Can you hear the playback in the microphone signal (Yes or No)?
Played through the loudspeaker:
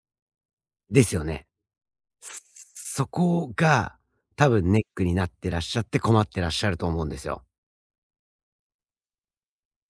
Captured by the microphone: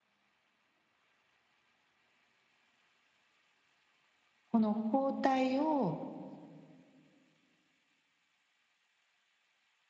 No